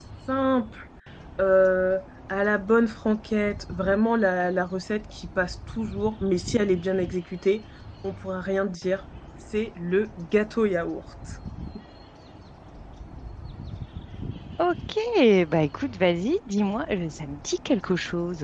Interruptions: none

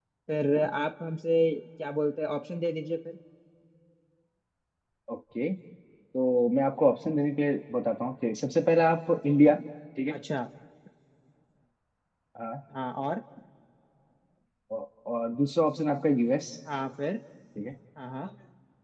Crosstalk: none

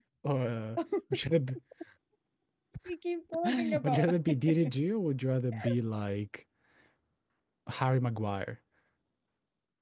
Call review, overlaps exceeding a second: present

